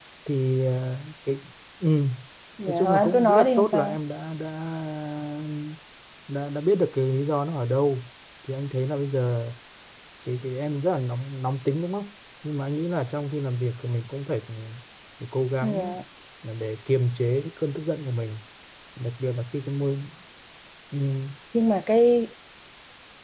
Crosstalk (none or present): present